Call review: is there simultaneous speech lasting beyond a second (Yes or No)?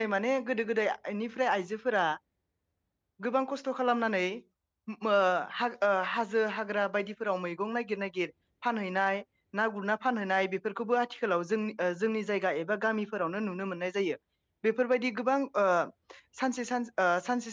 No